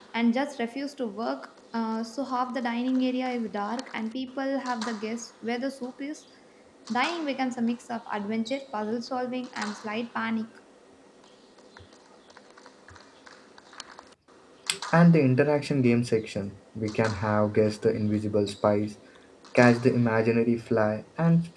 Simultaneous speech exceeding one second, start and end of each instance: none

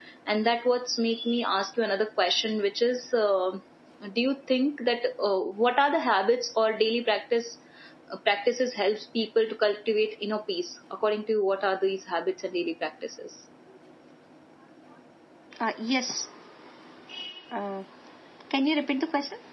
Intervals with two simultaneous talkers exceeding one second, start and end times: none

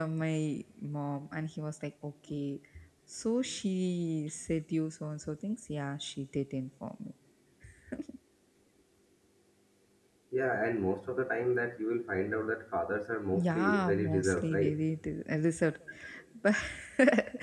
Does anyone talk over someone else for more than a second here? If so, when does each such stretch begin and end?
13.3-14.8

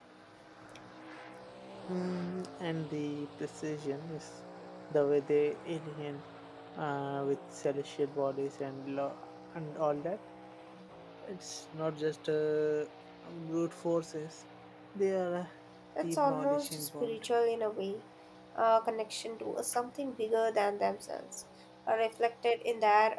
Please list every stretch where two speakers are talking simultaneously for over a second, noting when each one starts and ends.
16.0-17.2

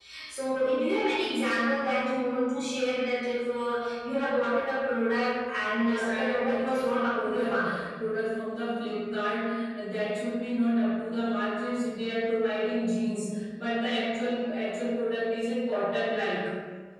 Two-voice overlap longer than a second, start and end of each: 5.8-7.7

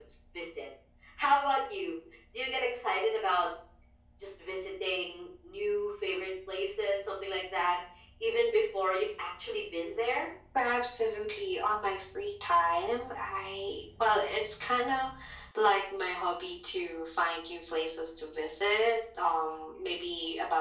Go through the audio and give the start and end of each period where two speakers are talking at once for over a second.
none

